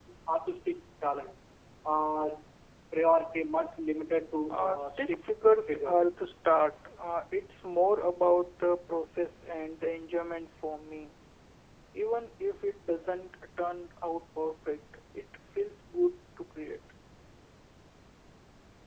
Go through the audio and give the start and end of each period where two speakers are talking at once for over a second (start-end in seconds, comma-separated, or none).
4.5-6.1